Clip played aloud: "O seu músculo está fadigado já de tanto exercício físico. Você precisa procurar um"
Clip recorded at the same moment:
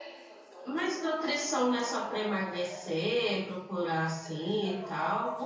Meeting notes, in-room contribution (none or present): present